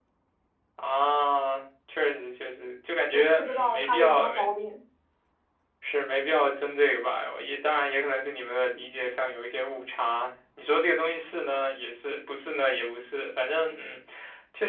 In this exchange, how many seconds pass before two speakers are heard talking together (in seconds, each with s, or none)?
3.1 s